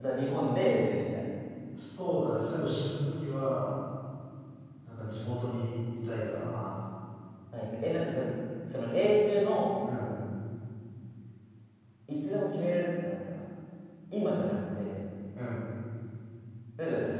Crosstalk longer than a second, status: none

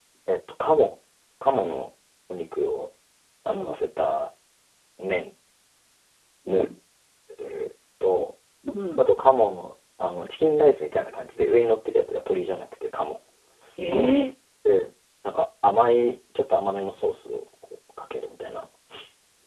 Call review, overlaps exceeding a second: none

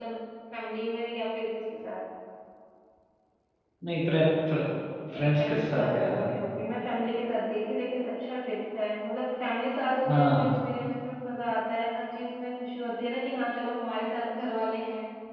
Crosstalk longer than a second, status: present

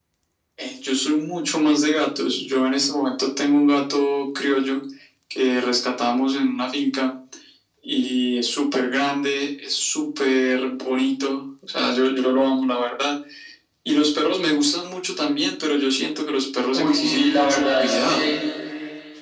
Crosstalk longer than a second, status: present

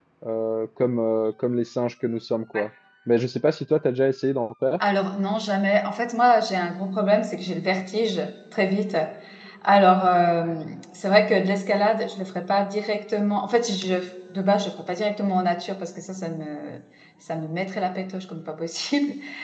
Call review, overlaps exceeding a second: none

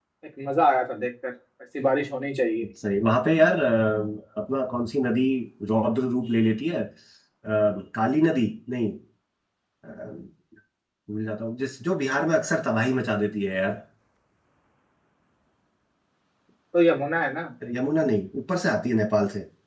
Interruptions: none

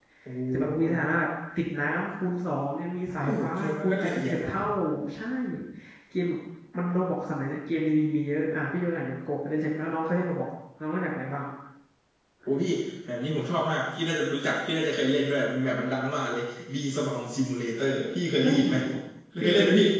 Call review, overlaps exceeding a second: present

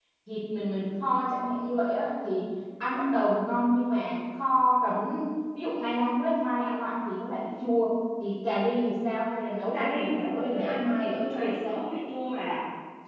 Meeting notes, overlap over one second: present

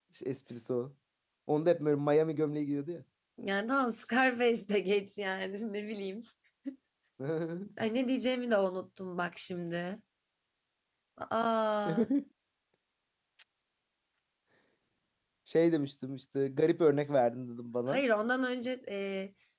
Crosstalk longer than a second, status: none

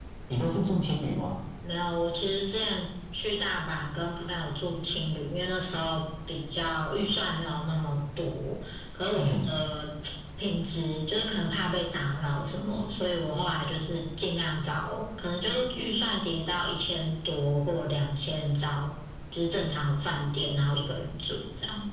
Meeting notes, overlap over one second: none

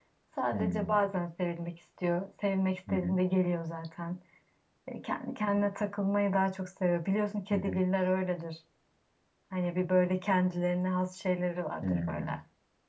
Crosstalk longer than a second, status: none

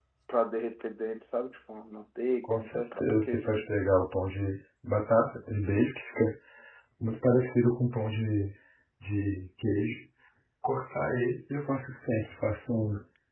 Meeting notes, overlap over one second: present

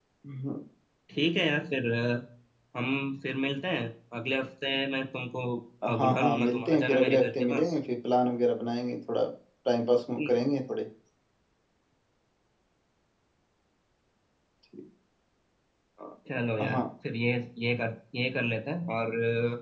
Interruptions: present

